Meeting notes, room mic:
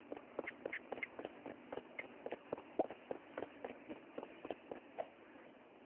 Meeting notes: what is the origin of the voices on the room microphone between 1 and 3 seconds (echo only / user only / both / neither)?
neither